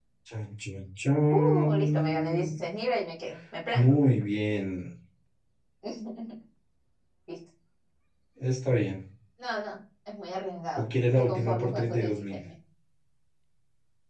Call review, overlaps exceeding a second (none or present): present